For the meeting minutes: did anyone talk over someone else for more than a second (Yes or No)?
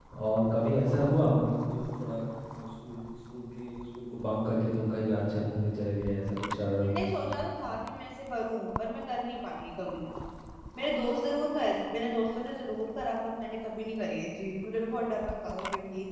No